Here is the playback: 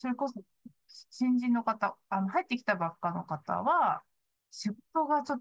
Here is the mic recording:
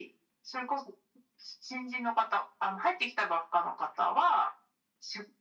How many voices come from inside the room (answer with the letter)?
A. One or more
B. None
B